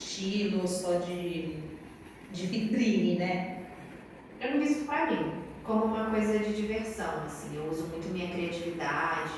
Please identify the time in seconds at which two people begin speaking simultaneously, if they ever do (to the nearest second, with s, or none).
none